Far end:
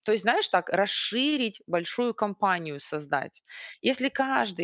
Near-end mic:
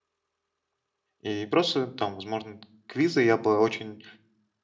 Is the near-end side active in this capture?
Yes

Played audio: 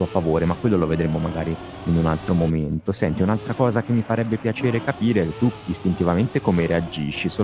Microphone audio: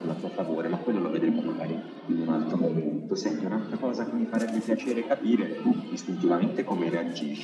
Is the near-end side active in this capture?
No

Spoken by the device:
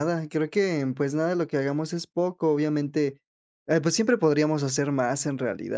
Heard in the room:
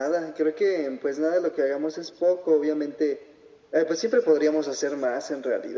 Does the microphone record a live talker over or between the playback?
No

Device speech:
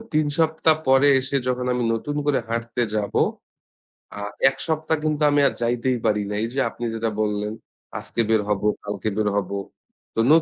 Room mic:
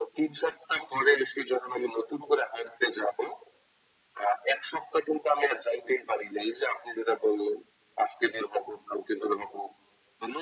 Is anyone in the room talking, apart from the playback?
No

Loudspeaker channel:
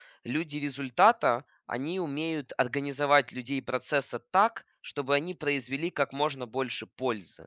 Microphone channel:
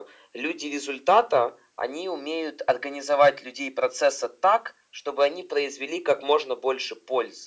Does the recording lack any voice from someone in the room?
Yes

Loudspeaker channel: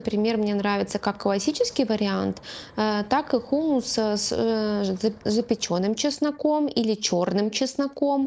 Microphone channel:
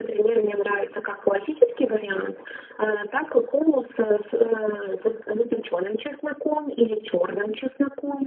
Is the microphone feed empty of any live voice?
Yes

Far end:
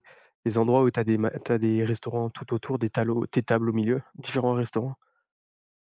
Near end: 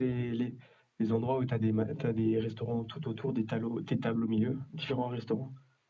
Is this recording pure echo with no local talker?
Yes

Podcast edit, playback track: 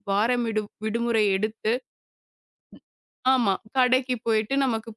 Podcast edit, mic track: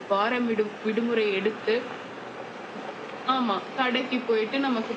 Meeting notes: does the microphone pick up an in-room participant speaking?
No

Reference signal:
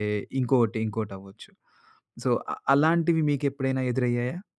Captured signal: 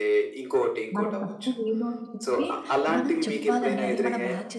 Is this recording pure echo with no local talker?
No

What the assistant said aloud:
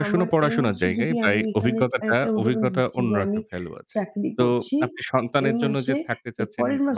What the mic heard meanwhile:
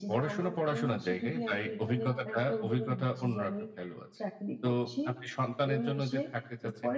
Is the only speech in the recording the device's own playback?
No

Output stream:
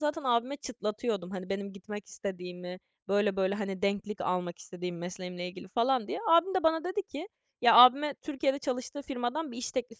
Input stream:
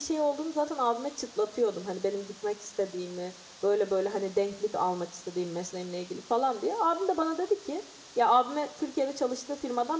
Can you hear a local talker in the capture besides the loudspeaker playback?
No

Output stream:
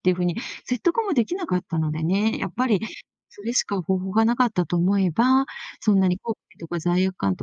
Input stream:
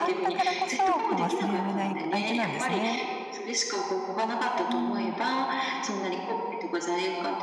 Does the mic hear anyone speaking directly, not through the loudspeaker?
Yes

